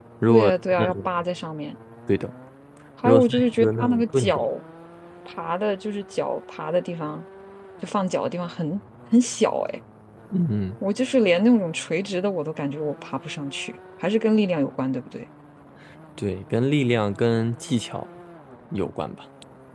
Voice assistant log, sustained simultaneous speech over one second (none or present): present